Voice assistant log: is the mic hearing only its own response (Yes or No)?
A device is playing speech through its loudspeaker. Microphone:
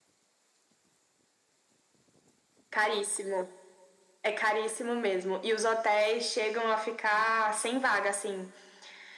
Yes